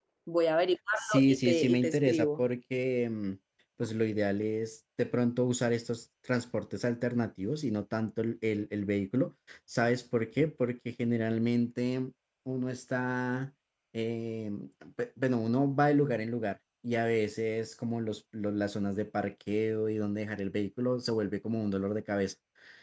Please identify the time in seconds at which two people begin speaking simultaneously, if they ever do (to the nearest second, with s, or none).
1 s